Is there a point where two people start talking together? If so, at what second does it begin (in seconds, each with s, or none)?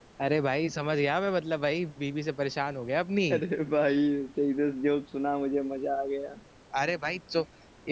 none